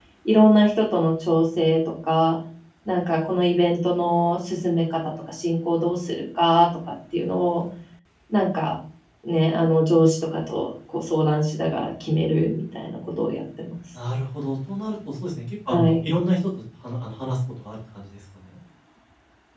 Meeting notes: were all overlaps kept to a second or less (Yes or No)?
Yes